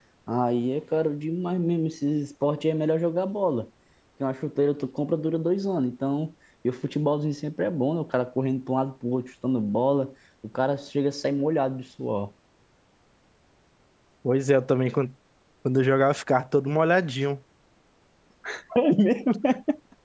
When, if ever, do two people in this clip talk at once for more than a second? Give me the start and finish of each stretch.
none

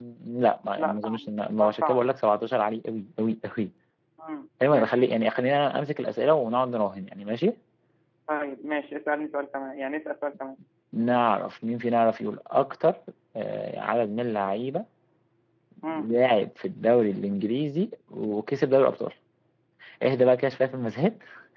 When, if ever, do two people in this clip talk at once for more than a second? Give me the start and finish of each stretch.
0.8-2.0

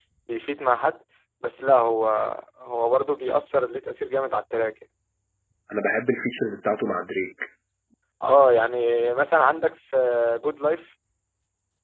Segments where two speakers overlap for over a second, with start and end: none

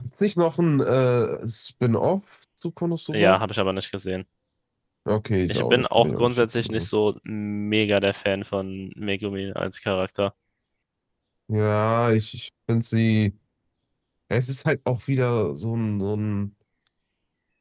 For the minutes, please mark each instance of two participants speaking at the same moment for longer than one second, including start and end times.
5.5-6.9

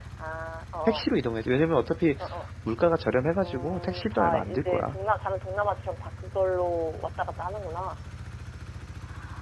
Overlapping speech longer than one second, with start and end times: 3.4-5.0

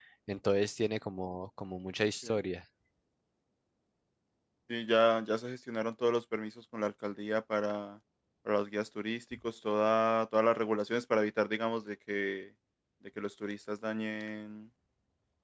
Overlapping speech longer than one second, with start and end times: none

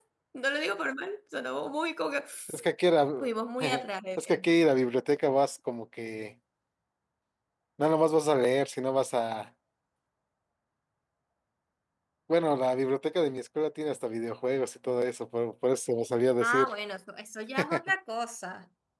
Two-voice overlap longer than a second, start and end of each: none

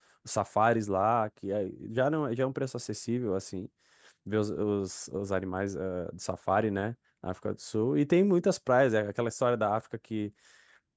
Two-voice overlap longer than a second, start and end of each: none

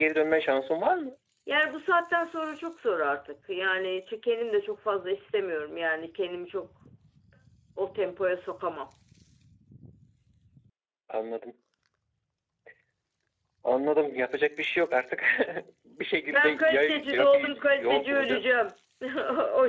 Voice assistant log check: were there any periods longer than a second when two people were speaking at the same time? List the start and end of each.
16.3-18.5

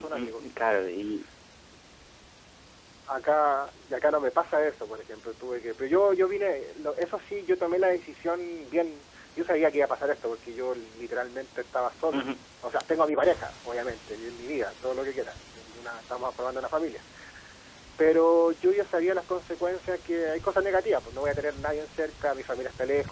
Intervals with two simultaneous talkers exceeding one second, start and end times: none

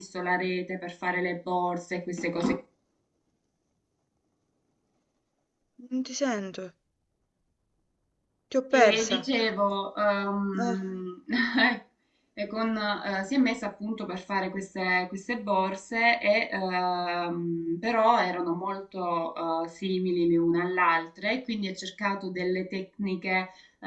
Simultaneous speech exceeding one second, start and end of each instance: none

